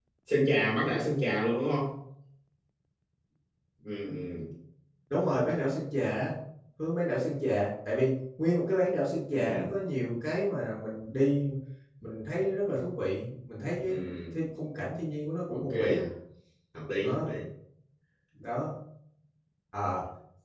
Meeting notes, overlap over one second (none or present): none